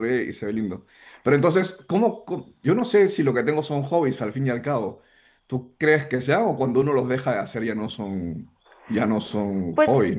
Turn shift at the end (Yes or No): Yes